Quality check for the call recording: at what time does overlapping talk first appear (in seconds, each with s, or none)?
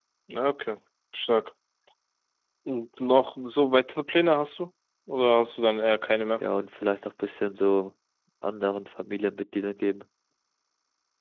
none